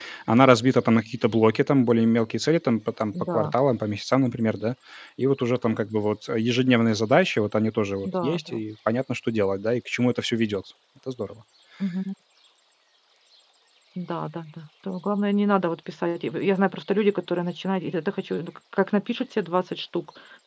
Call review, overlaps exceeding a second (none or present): none